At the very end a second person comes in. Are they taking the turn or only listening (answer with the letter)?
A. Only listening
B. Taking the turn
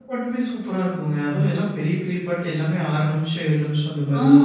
B